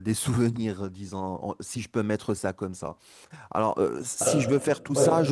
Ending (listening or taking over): listening